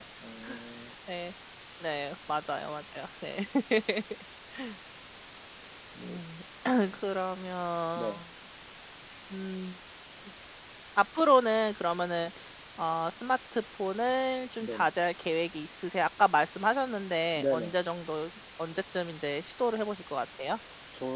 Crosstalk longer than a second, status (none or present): none